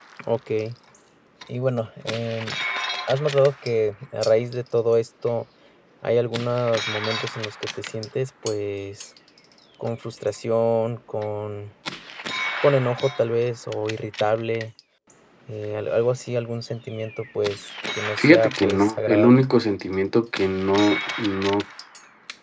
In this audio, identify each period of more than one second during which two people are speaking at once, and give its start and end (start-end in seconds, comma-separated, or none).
18.2-19.4